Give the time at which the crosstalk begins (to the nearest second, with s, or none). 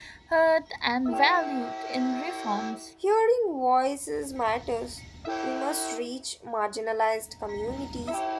none